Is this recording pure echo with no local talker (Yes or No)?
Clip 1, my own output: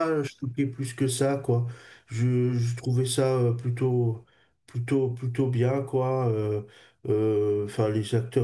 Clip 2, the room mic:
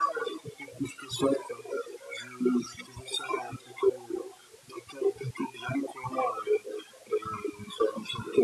Yes